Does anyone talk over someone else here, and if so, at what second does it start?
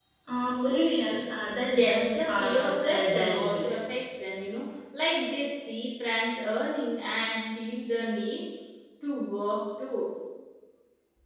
1 s

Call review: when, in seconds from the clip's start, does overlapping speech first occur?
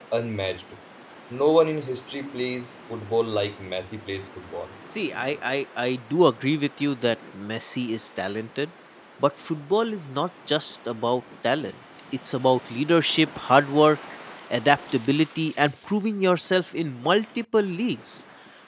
none

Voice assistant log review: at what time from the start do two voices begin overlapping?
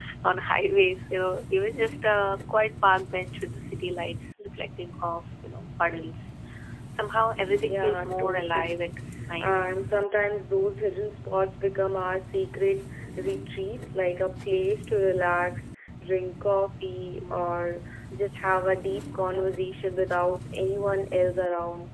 8 s

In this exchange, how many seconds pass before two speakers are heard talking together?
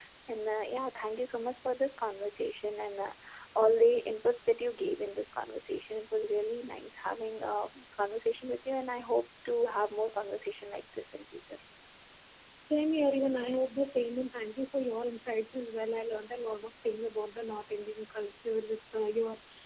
none

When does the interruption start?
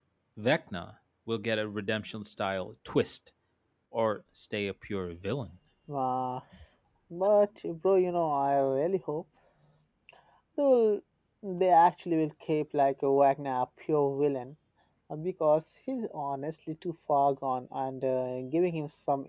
none

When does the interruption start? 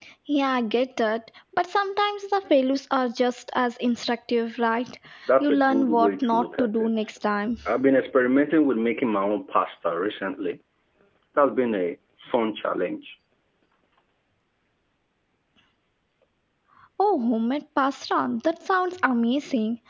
5 s

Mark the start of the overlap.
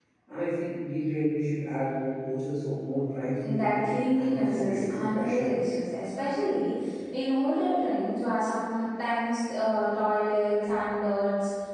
3 s

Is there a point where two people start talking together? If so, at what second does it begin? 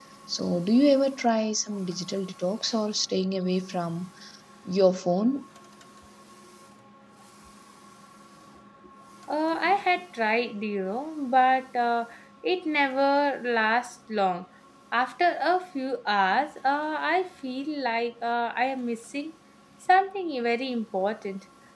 none

